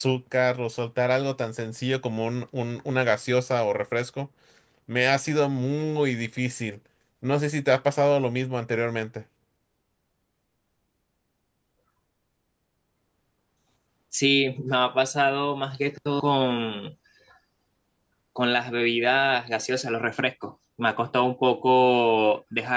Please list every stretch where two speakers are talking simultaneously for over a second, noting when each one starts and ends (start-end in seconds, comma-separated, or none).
none